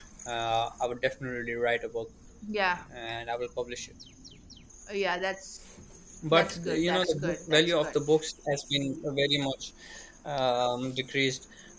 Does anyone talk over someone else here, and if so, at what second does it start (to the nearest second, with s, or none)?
6 s